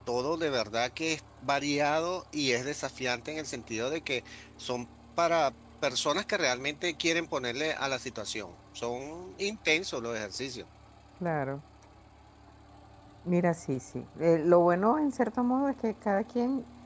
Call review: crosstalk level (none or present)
none